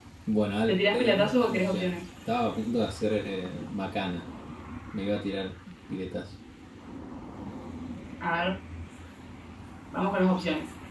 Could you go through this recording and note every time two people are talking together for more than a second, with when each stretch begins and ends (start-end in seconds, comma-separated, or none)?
0.7-2.0